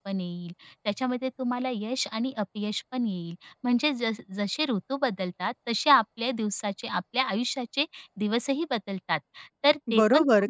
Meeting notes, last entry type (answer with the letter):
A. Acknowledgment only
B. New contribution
B